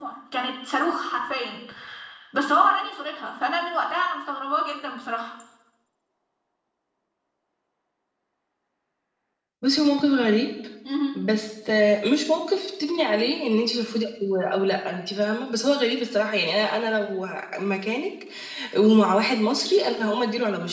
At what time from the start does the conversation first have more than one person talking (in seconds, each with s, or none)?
none